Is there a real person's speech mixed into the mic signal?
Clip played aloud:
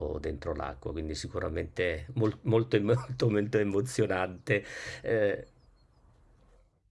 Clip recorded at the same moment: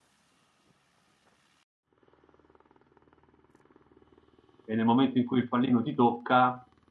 Yes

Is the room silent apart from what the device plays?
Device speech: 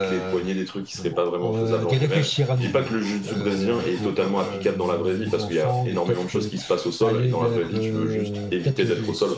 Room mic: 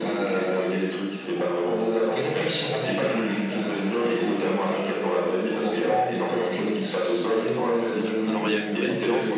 No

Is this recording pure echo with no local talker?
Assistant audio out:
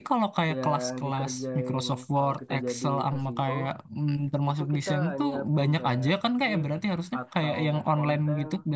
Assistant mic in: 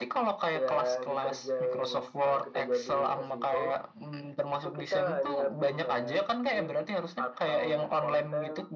Yes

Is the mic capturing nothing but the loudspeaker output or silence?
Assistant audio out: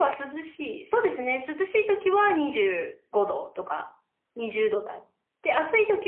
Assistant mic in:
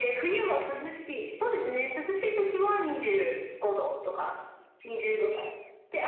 Yes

